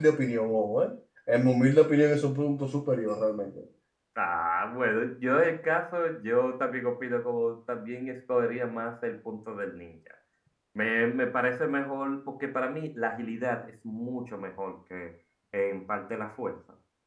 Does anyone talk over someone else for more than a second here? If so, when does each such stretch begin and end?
none

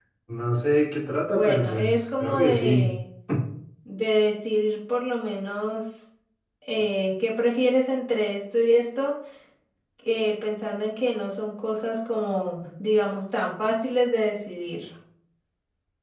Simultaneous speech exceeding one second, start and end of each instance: 1.3-2.9

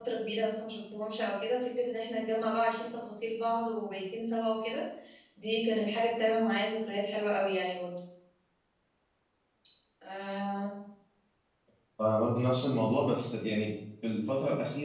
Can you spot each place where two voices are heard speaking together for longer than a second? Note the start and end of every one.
none

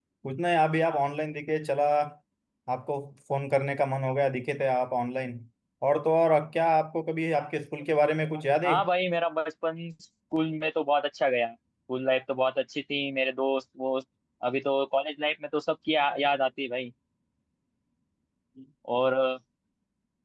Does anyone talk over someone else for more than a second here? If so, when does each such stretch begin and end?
none

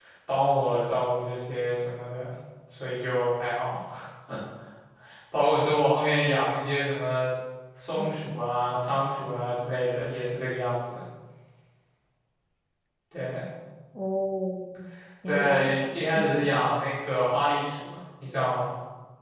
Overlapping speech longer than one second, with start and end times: 15.3-16.7

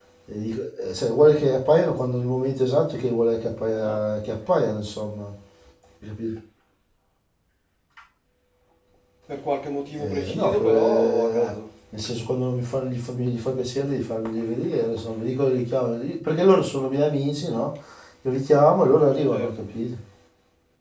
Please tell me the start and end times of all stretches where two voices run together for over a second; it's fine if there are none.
10.0-11.5

